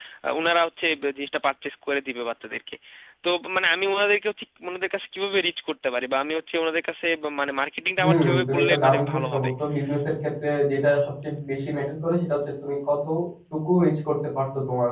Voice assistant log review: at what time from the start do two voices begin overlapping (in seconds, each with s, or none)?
8.0 s